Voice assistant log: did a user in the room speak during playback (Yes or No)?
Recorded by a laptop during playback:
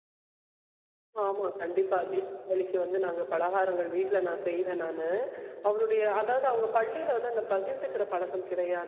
Yes